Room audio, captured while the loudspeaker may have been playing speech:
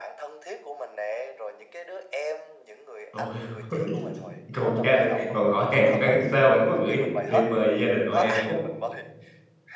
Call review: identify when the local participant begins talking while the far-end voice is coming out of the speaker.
3.1 s

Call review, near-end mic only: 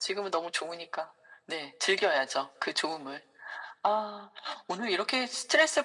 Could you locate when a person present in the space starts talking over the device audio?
none

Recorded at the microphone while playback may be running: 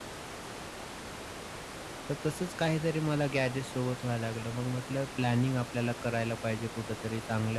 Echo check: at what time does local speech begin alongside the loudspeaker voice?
2.1 s

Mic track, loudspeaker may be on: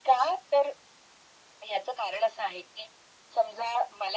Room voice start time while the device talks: none

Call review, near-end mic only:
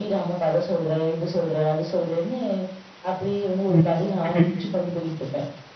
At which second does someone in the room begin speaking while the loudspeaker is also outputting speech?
3.7 s

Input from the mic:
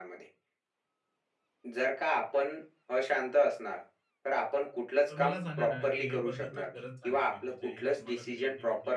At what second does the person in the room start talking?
5.1 s

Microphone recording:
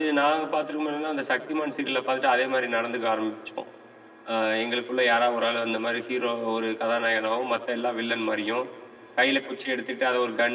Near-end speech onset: none

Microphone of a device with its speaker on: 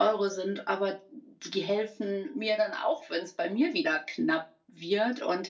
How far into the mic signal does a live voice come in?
none

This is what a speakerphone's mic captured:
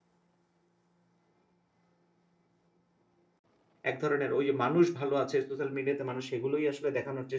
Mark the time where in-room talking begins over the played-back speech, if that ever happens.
3.9 s

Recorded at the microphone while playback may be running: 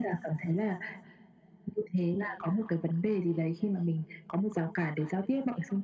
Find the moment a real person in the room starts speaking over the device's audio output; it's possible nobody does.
none

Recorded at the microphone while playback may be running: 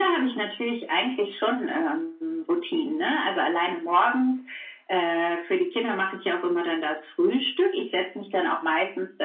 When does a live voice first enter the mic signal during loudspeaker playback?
none

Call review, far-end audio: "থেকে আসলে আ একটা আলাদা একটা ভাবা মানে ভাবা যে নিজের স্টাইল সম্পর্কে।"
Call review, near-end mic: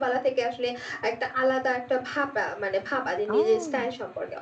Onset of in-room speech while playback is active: 3.3 s

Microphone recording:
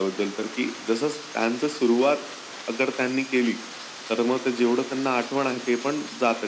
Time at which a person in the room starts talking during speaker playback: none

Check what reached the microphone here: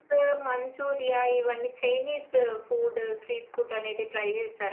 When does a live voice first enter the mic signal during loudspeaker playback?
none

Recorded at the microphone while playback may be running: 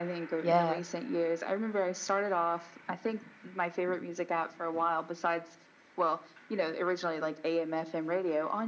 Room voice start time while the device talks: 0.4 s

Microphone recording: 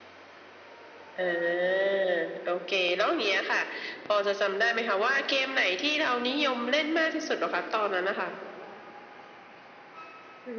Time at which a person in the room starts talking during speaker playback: none

